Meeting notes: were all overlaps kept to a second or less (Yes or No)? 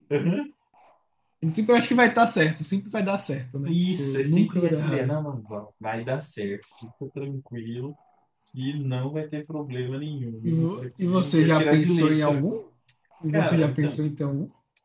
No